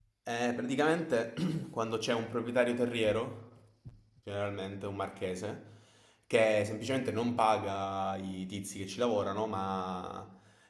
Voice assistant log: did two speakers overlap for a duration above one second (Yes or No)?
No